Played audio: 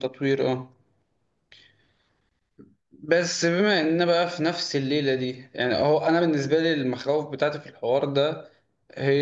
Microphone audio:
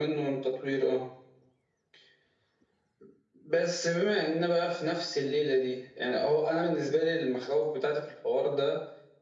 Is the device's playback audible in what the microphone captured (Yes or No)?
Yes